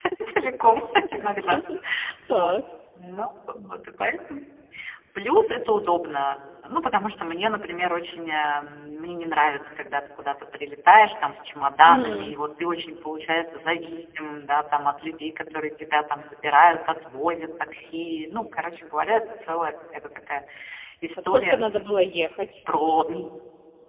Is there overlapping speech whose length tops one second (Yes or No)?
No